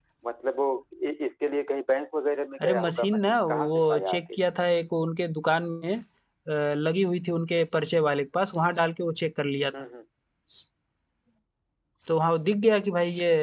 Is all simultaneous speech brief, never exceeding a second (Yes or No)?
No